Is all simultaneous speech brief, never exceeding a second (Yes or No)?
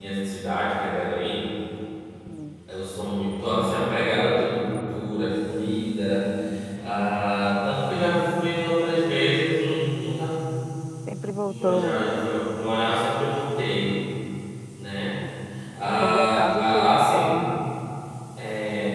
No